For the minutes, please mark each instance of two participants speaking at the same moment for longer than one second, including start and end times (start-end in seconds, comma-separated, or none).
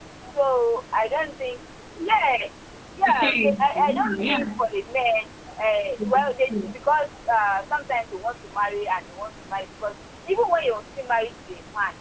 3.0-4.7